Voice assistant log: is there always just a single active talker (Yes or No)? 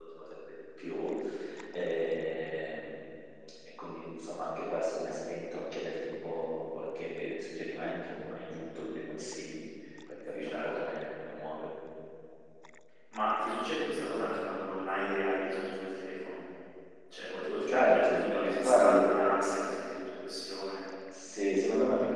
No